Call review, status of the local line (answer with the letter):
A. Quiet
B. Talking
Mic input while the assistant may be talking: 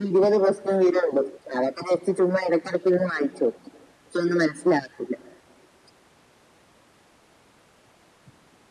A